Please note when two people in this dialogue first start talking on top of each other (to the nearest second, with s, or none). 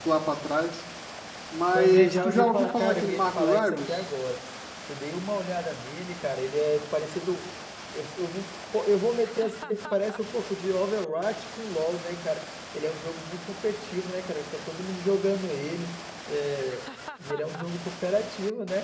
2 s